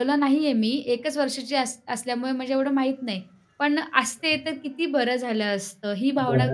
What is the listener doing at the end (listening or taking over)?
taking over